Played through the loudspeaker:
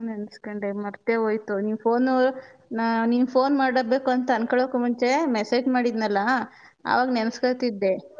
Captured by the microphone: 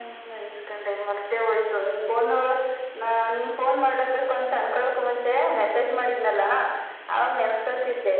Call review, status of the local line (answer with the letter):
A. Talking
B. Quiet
B